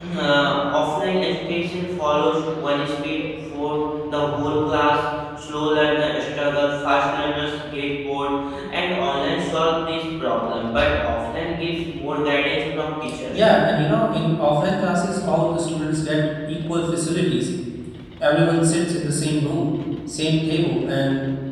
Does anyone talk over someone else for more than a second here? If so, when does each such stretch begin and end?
none

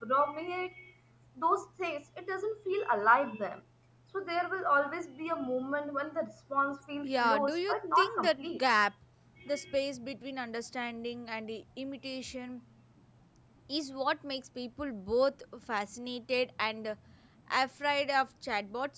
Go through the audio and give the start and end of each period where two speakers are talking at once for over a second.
7.0-8.6

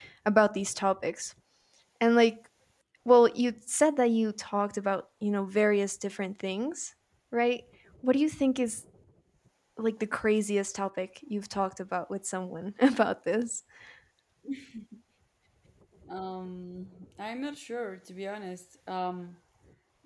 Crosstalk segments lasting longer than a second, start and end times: none

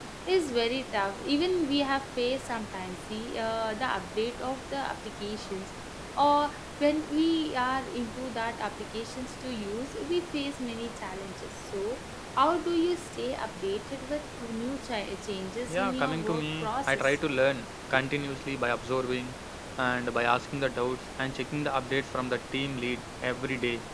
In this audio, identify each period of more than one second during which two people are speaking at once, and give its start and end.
15.7-17.2

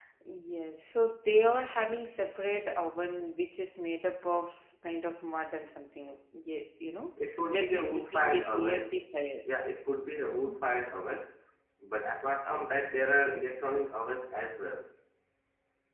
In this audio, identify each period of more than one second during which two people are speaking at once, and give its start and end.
7.5-8.9

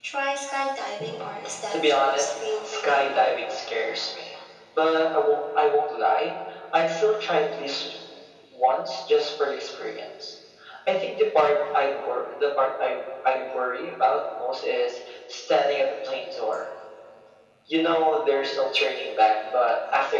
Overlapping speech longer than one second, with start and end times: 1.7-3.1

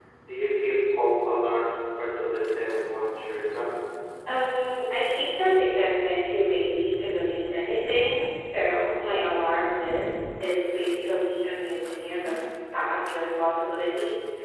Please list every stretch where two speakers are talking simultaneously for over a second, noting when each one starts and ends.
none

